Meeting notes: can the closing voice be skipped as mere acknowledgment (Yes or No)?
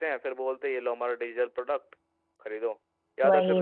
Yes